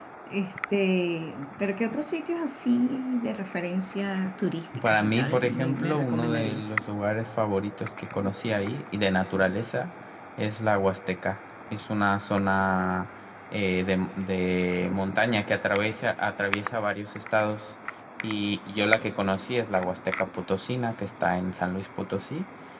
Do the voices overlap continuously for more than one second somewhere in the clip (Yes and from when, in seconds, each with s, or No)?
Yes, from 4.7 s